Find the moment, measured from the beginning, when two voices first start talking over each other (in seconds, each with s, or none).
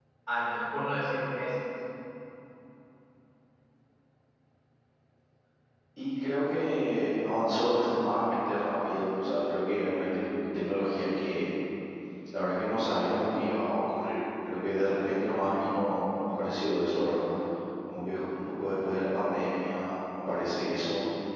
none